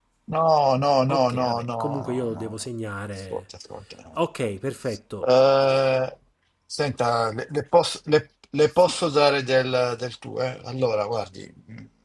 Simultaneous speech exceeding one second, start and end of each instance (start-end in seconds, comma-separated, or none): 1.1-2.5